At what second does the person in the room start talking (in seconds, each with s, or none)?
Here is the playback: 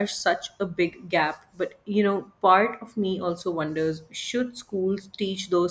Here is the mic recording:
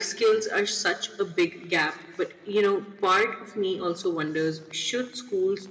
none